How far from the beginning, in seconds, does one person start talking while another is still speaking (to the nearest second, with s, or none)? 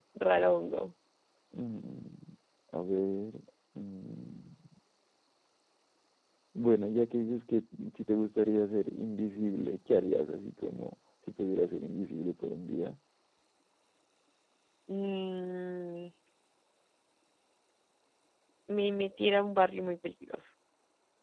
none